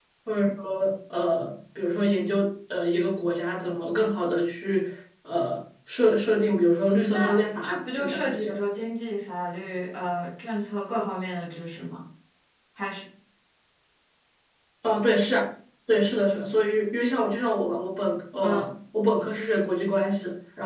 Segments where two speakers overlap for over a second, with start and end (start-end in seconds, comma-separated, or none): 7.1-8.6